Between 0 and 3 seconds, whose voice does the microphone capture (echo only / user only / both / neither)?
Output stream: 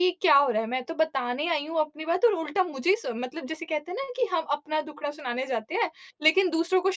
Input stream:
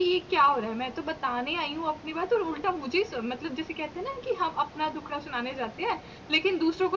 echo only